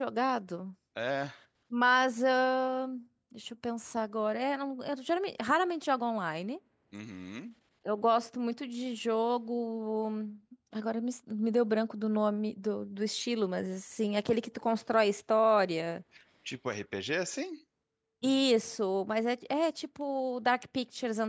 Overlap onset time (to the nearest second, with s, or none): none